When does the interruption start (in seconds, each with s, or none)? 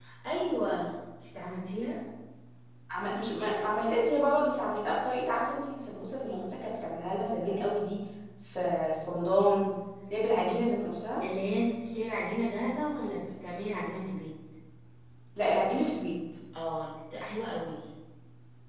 none